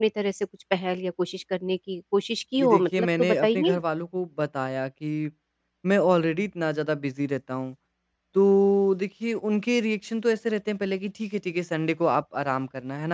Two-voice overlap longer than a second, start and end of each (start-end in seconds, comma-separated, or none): 2.6-3.8